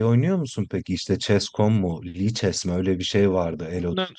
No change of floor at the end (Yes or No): No